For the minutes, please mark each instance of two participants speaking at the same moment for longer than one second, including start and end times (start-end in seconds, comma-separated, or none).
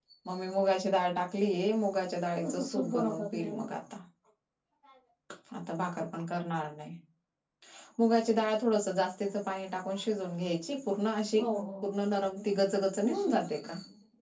2.4-3.6